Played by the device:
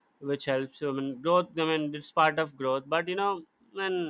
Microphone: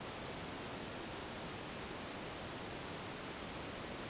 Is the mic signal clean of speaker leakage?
Yes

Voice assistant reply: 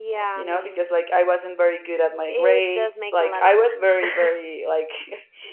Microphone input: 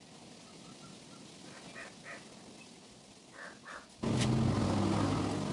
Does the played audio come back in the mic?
No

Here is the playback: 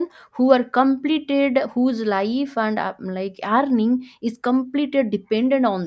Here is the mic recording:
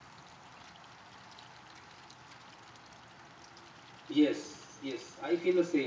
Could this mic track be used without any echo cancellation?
Yes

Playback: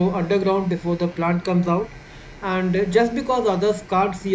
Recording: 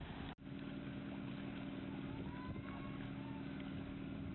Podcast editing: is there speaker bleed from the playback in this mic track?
No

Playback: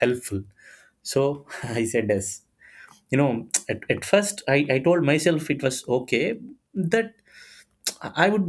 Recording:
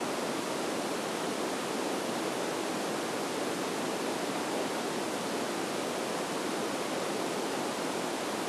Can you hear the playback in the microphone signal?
No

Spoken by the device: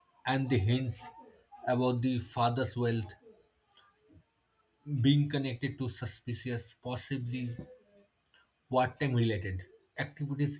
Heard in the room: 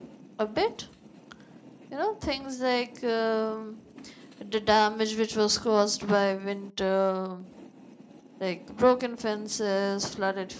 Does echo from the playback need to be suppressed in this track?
No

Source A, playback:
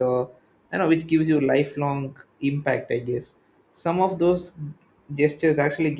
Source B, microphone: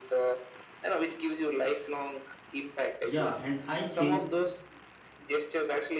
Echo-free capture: No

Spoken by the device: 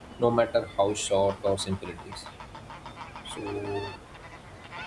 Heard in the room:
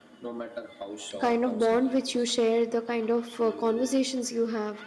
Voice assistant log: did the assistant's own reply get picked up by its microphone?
Yes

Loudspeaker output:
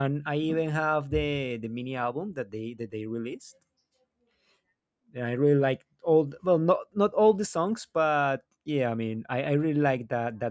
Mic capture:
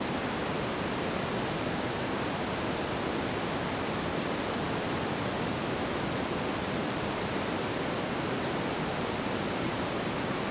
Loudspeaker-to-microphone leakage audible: No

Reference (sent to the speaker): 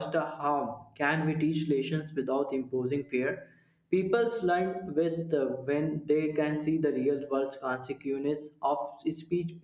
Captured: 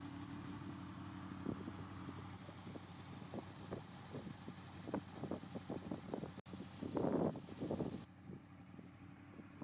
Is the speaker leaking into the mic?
No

